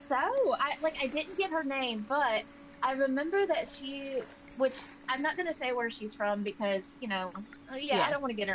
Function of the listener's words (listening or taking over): listening